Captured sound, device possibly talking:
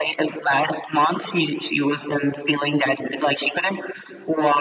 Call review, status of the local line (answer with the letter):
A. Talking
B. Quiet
B